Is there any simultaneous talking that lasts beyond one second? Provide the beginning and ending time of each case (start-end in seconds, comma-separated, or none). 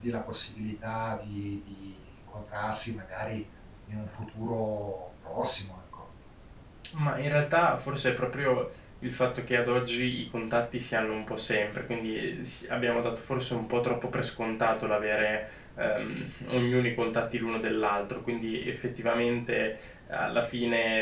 none